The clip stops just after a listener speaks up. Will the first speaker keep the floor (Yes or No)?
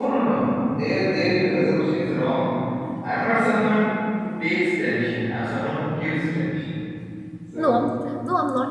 No